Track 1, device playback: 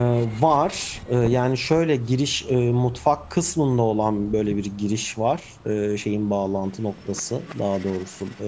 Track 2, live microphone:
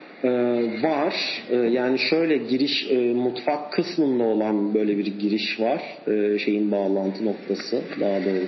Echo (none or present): present